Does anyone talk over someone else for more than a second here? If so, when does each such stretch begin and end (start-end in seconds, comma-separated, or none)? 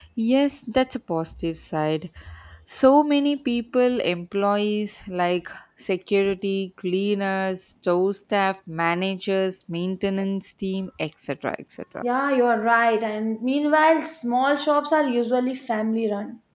none